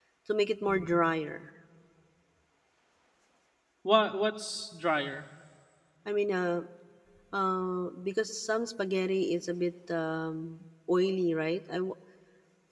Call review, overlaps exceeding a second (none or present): none